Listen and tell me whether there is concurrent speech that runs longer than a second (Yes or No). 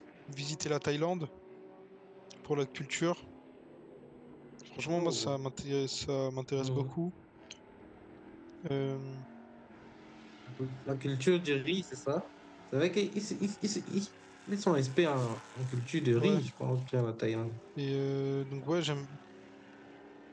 No